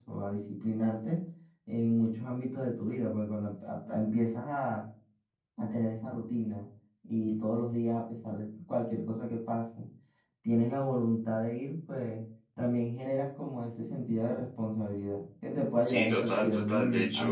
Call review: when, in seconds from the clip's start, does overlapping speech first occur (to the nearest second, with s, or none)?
16 s